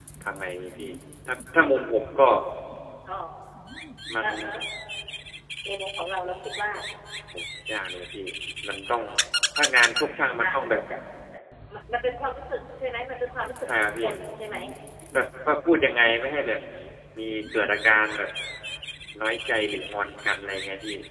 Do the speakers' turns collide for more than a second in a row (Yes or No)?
No